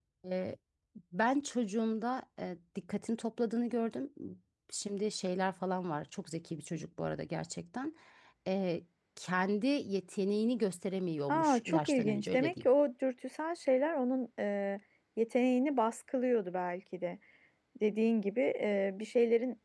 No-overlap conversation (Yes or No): No